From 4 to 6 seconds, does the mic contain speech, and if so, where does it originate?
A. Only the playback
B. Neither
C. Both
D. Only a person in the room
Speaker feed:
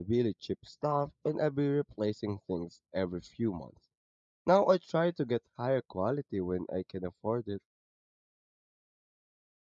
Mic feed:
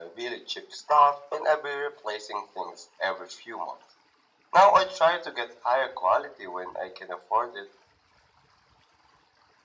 A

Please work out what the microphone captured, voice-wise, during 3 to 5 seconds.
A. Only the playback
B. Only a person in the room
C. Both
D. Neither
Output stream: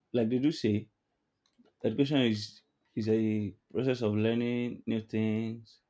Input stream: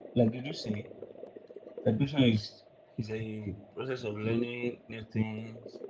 A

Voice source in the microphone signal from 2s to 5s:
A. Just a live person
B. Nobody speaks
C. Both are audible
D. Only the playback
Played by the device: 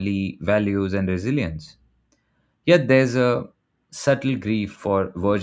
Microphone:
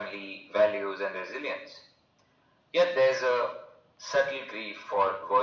D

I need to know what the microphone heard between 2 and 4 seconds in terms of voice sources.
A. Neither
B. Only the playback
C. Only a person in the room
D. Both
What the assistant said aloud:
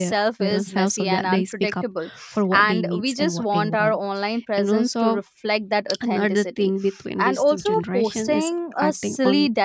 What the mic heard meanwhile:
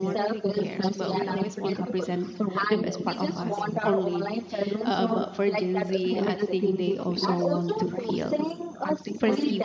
D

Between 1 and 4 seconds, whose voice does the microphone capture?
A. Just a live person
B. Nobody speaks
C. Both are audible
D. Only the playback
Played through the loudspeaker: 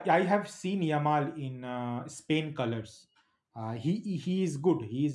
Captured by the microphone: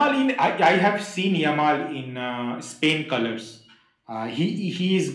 D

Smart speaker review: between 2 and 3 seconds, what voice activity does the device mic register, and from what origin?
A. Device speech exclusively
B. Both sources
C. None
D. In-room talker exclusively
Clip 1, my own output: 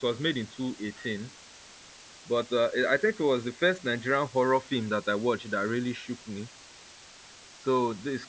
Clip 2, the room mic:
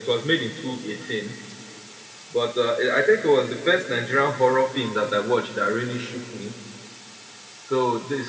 A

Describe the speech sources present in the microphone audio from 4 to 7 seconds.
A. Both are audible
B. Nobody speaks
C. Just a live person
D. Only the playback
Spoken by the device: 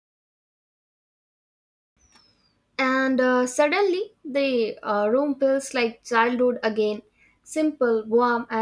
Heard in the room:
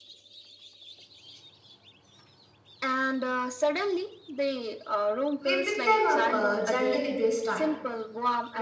A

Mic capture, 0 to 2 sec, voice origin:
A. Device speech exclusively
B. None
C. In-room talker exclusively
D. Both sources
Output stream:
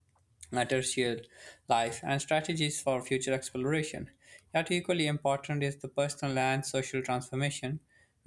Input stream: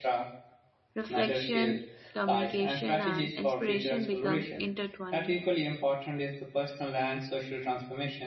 D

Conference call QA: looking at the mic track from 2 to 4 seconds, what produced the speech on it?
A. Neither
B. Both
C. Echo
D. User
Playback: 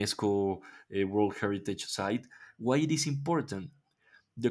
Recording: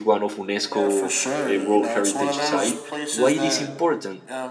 B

